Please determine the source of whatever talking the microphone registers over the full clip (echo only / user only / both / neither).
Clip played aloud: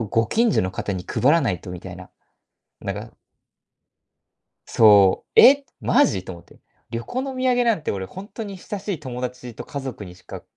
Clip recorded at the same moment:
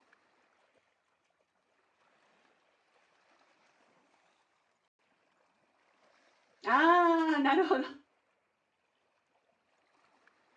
user only